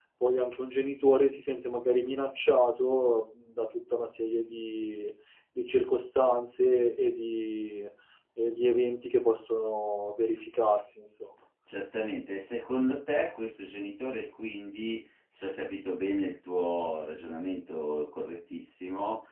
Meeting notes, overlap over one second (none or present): none